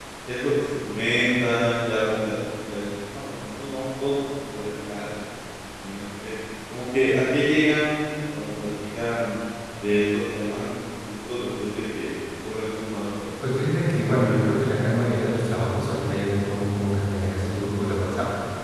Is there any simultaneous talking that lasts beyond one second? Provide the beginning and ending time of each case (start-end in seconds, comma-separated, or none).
none